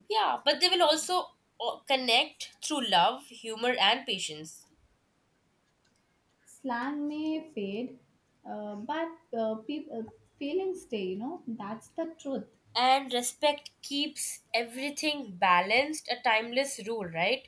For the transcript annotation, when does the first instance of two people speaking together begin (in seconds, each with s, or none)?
none